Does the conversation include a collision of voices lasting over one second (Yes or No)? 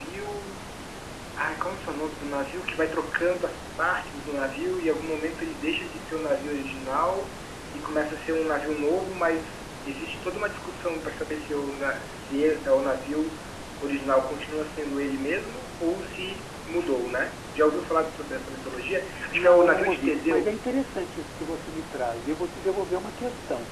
Yes